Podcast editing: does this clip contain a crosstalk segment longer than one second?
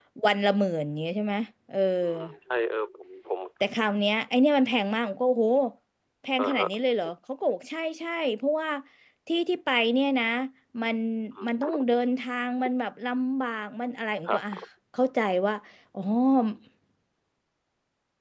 No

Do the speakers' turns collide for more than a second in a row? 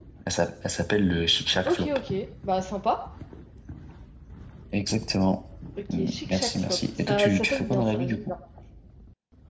Yes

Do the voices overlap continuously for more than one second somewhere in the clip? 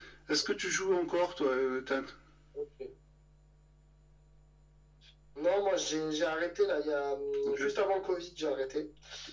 No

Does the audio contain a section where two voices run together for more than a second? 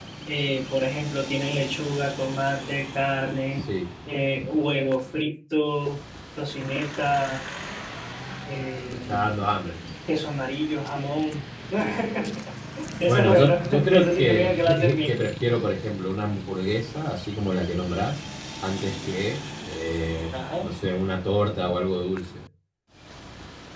Yes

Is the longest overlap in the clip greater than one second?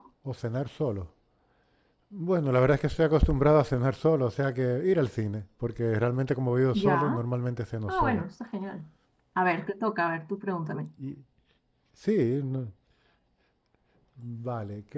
No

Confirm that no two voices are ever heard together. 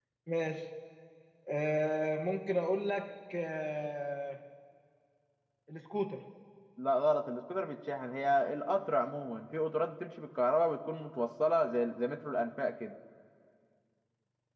Yes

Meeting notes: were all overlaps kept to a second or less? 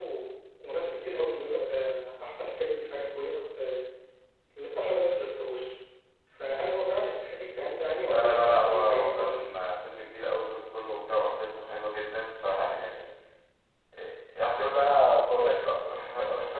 No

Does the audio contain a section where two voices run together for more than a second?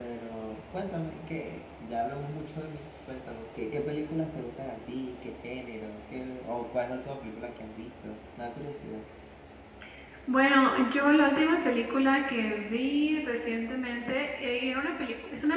No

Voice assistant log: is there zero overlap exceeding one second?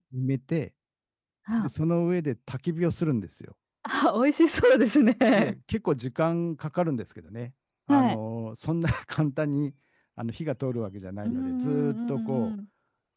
No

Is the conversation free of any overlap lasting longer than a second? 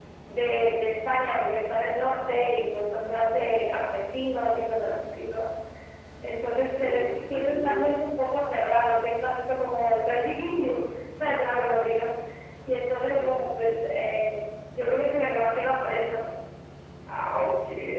No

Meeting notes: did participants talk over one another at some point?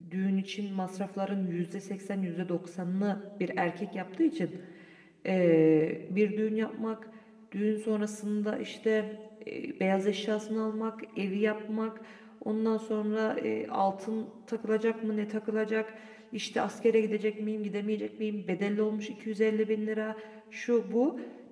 No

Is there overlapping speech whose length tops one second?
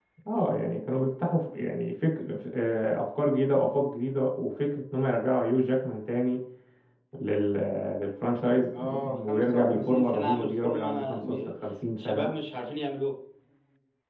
Yes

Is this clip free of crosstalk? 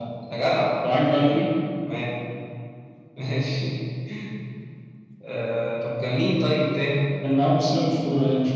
Yes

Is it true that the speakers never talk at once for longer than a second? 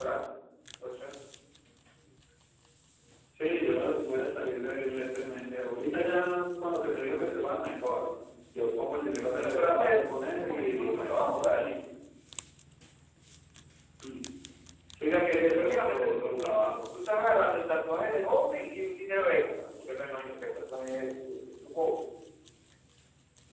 No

